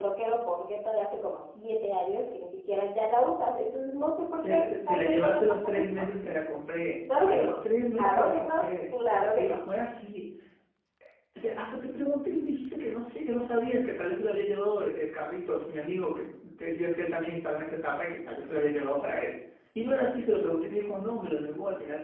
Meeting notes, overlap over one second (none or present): present